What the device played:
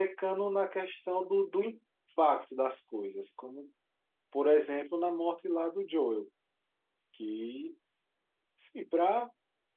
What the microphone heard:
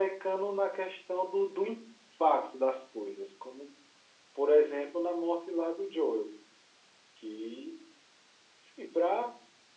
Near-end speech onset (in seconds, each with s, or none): none